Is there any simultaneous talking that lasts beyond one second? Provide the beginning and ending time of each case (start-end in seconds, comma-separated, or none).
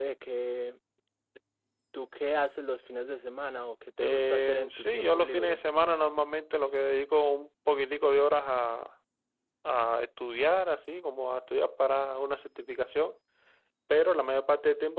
4.0-5.6